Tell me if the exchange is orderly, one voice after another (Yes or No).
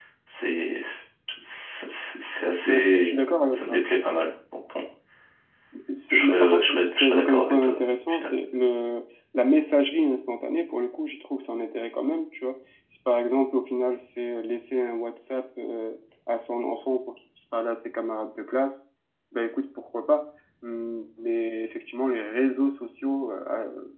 No